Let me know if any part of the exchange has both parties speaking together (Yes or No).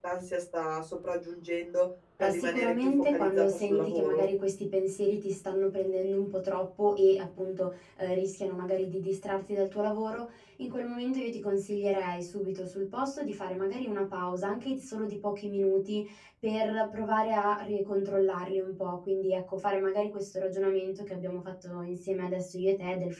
Yes